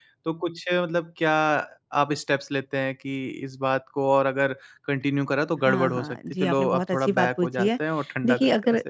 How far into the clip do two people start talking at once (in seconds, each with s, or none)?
5.7 s